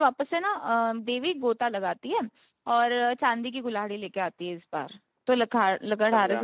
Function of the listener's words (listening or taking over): listening